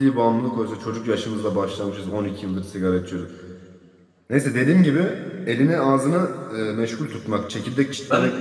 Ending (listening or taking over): listening